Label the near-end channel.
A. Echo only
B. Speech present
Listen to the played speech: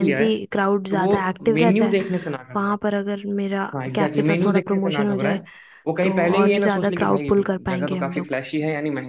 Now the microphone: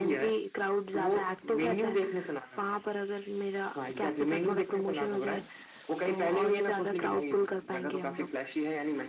A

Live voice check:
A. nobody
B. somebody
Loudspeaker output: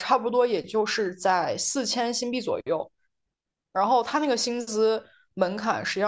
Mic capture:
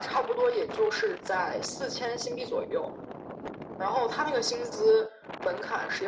A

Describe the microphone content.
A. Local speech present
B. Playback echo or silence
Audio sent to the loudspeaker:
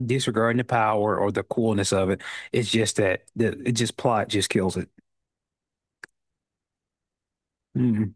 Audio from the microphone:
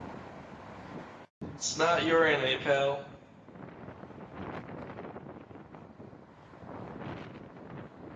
A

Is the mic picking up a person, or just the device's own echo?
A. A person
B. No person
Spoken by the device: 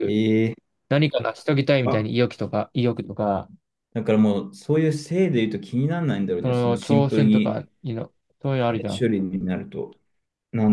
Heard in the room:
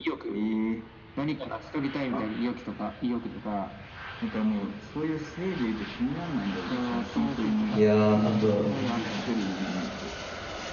A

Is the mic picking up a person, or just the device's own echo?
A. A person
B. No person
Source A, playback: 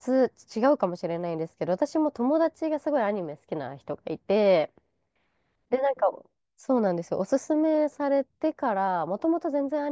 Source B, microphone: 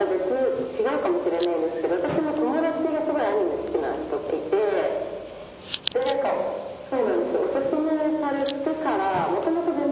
B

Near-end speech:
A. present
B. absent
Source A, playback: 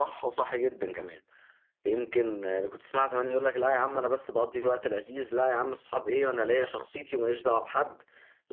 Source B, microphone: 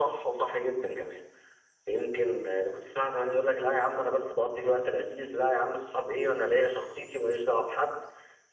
B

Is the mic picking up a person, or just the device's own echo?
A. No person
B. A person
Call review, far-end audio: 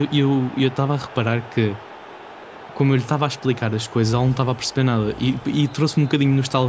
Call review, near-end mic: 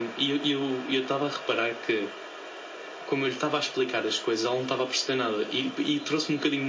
A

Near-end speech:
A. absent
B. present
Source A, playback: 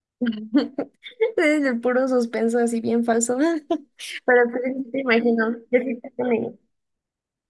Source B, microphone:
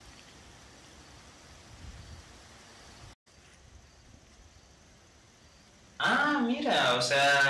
B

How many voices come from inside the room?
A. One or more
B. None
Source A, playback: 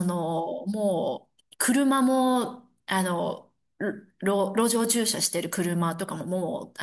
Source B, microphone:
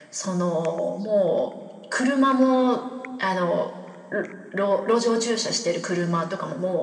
B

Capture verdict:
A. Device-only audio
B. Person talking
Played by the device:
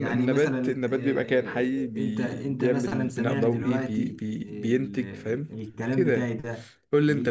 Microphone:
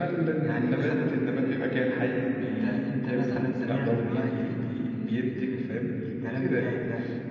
A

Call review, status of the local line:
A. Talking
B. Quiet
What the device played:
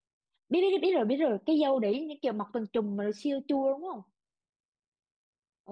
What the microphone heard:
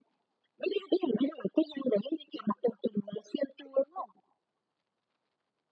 B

